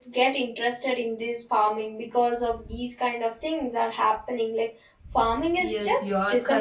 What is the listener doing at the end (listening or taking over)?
taking over